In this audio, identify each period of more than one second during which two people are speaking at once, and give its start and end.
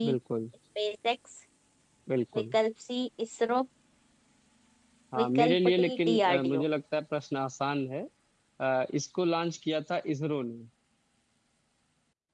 5.2-6.6

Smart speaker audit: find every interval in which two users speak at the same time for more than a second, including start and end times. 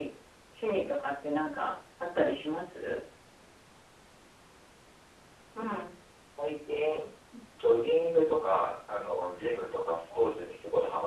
none

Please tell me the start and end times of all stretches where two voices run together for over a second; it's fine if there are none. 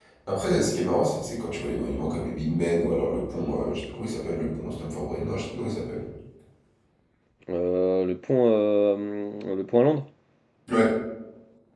none

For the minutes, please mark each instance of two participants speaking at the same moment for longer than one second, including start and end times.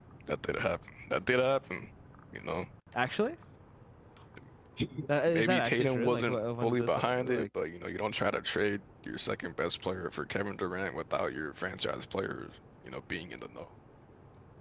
5.3-7.5

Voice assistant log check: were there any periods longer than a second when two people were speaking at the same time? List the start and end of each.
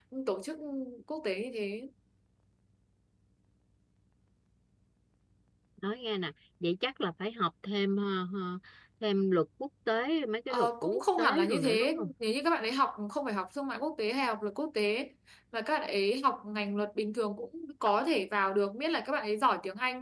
10.5-12.1

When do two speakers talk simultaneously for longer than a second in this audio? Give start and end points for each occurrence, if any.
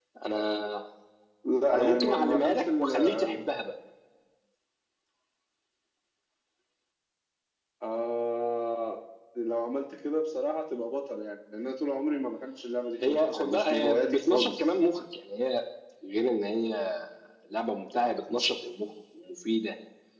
1.7-3.4, 13.1-14.6

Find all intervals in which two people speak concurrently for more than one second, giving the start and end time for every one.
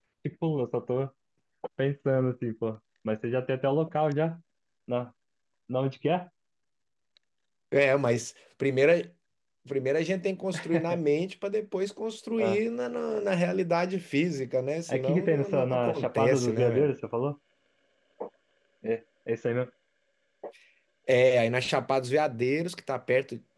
14.9-16.9

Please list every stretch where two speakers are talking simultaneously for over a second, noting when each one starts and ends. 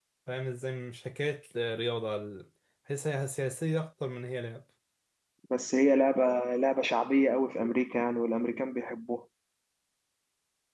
none

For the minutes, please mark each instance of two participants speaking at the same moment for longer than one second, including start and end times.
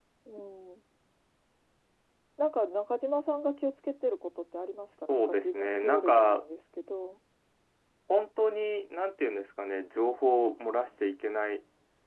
5.1-6.4

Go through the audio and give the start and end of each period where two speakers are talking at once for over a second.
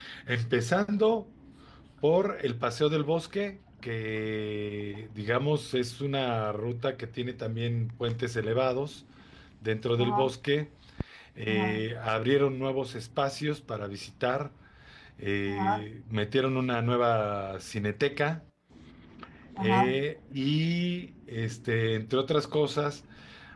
none

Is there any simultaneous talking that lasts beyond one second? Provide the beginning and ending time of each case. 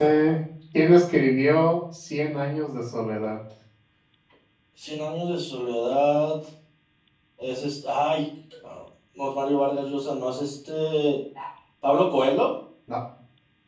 none

